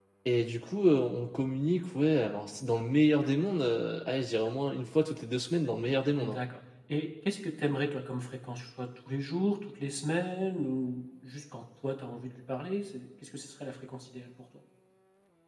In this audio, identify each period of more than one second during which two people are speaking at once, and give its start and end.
none

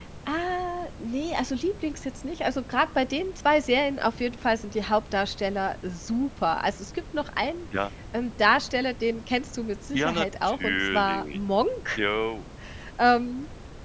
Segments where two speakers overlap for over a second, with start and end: 9.9-11.4

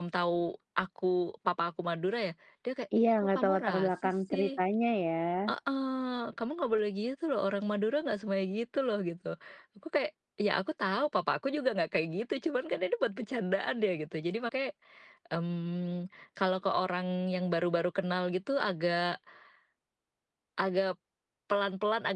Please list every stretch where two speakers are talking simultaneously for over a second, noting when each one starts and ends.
3.2-4.6

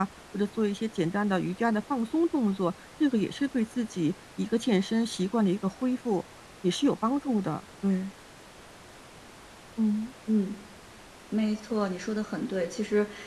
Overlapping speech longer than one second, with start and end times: none

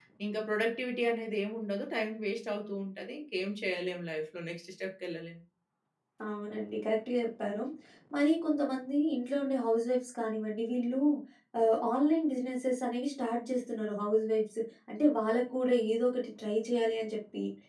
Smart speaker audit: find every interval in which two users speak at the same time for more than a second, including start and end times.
none

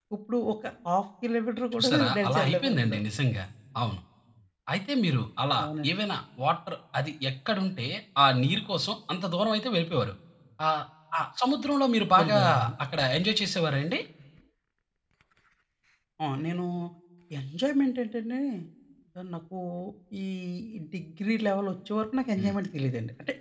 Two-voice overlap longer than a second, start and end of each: 1.7-3.0

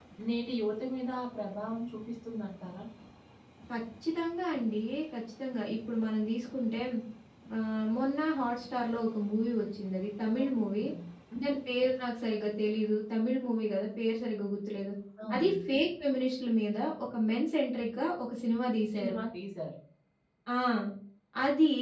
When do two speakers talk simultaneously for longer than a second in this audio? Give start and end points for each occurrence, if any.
none

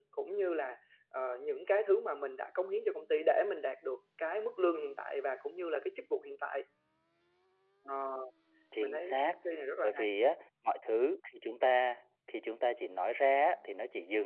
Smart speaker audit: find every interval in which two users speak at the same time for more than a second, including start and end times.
none

